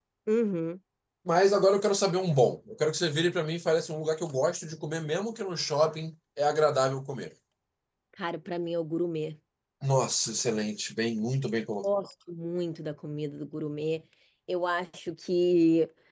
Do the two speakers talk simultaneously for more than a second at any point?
No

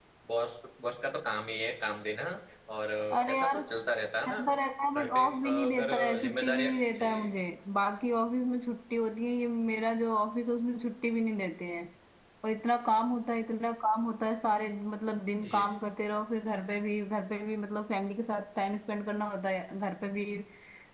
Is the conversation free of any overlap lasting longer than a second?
No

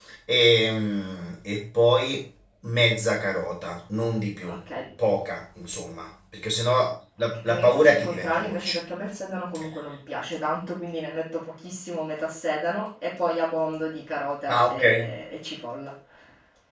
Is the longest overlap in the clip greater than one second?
Yes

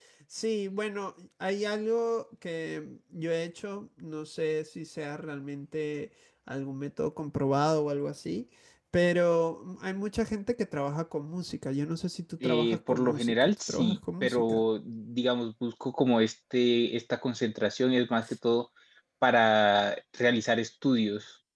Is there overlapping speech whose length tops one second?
Yes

